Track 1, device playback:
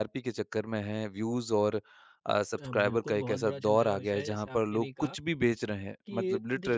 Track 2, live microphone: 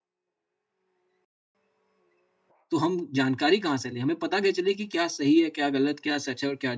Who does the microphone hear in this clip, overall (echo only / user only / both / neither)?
user only